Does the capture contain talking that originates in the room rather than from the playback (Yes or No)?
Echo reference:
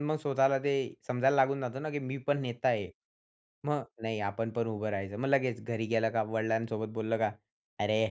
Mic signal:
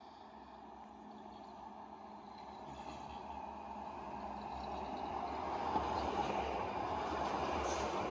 No